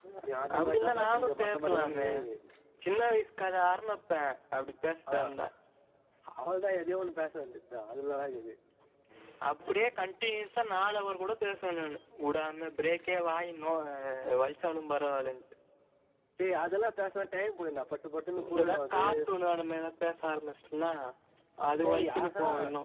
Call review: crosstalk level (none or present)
present